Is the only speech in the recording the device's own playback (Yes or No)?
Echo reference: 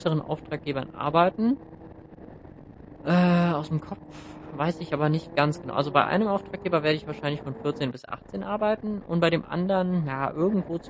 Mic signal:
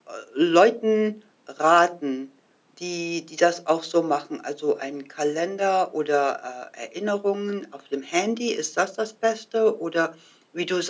No